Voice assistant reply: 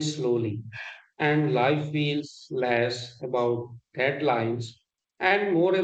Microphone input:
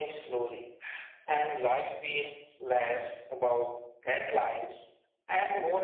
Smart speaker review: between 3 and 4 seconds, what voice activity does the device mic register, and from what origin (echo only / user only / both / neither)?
echo only